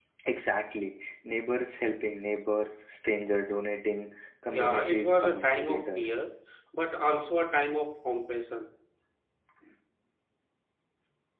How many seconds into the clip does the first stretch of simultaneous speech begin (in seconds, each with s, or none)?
4.5 s